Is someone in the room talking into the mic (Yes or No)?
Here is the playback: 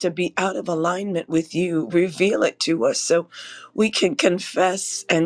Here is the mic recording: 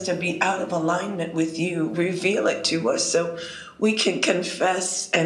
No